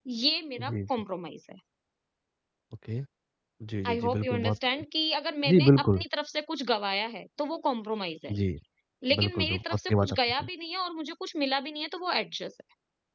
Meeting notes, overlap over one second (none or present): present